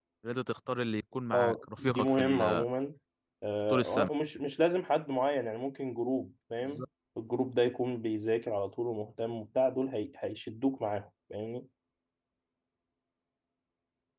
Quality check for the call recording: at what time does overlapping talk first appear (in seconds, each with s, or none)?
1.3 s